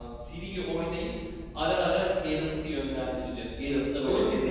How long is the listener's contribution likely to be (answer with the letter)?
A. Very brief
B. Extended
B